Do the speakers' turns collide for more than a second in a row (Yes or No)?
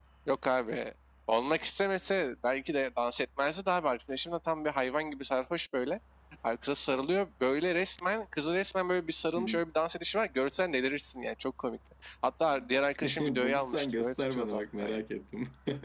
Yes